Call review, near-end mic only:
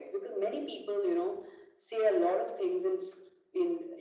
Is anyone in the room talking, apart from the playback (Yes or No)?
No